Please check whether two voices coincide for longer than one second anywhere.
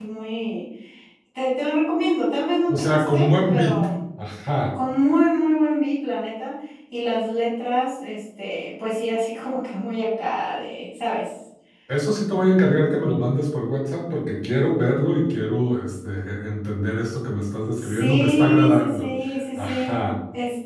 Yes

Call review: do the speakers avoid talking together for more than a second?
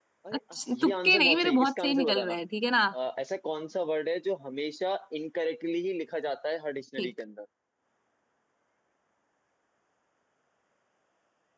No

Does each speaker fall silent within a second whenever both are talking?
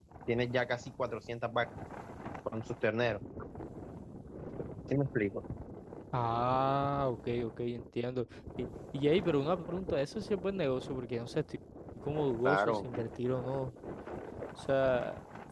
Yes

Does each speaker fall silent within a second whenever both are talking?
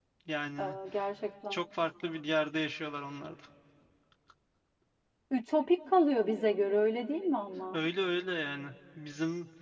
Yes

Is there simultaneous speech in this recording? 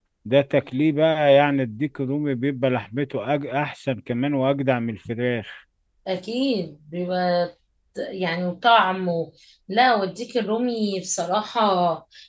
No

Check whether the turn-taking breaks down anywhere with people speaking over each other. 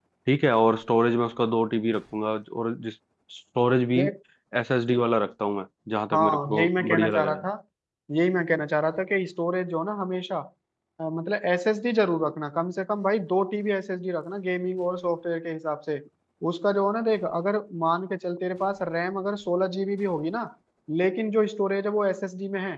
Yes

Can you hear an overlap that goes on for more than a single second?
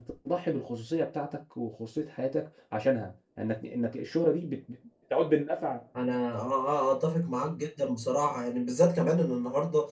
No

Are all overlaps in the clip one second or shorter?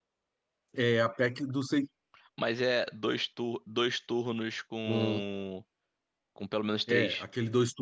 Yes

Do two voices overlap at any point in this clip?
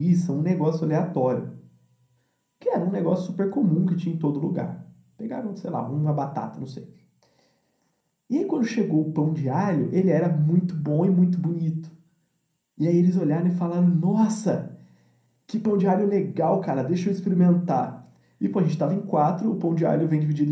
No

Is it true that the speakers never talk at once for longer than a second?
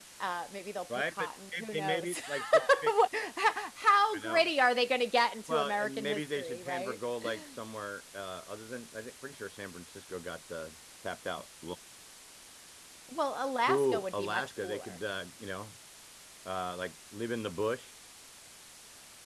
No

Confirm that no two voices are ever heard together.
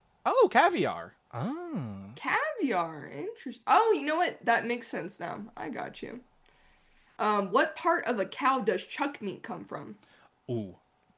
Yes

